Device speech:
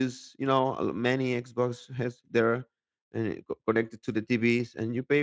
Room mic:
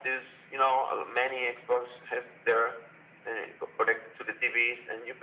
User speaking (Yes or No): No